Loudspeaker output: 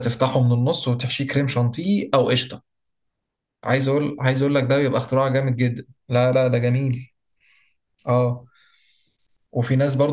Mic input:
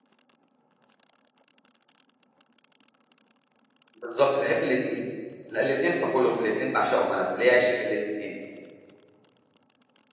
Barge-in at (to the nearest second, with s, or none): 4 s